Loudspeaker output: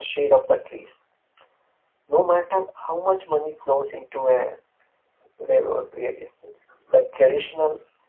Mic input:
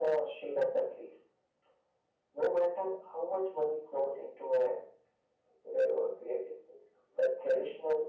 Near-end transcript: none

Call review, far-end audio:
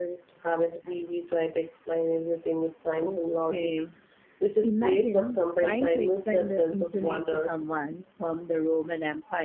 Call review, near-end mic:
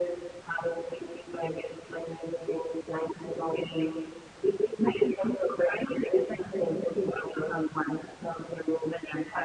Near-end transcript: none

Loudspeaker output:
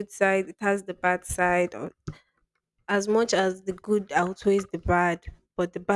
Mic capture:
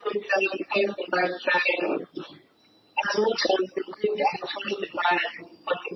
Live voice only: none

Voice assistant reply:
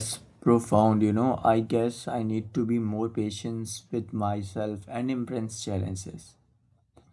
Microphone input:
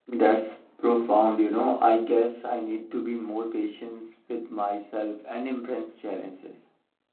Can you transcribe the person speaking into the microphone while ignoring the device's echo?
none

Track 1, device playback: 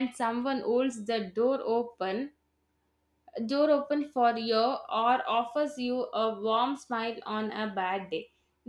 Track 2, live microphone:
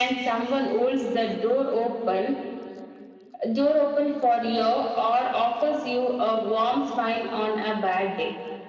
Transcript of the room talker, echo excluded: none

